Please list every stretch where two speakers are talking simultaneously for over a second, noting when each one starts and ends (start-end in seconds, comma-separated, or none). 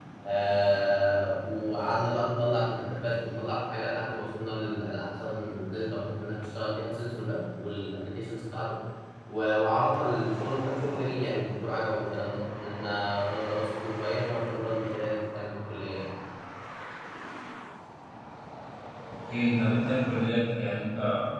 none